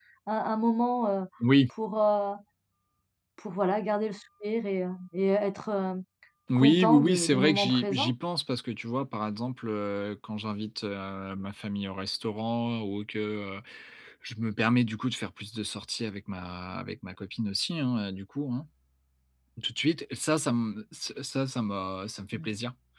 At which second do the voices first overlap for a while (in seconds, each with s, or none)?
6.5 s